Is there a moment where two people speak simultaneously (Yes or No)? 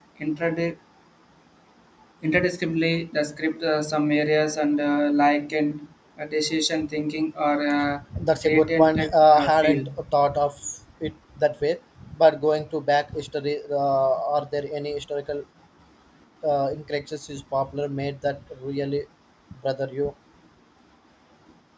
Yes